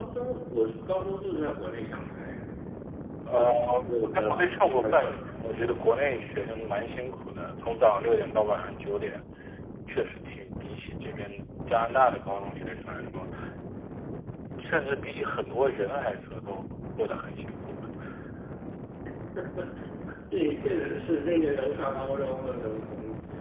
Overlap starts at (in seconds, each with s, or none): 3.4 s